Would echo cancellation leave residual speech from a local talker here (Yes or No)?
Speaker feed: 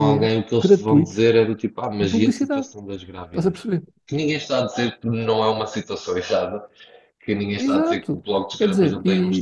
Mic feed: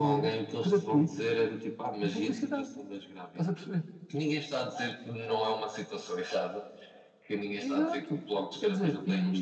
No